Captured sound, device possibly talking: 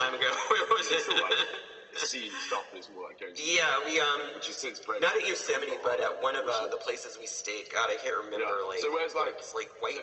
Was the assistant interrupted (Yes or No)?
No